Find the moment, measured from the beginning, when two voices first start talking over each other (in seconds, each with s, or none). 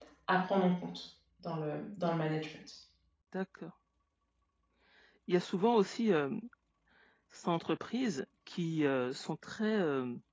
none